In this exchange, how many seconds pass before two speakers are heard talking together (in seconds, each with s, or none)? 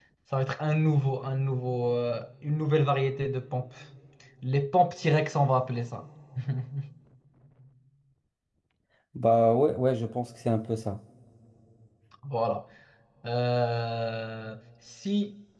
none